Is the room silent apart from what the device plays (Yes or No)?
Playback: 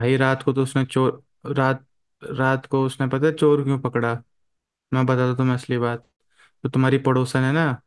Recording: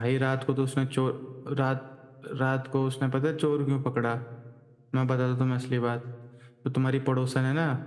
Yes